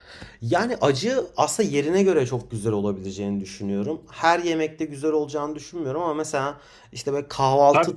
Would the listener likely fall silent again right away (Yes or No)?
Yes